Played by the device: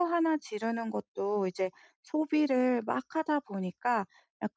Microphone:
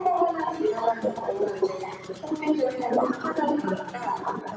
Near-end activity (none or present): none